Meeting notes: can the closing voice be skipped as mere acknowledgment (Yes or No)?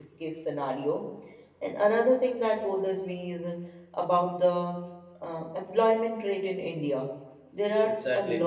Yes